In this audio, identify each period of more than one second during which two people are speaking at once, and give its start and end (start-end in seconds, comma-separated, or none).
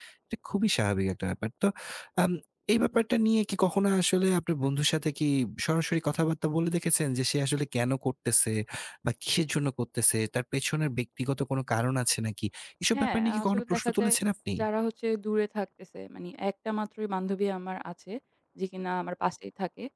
12.9-14.1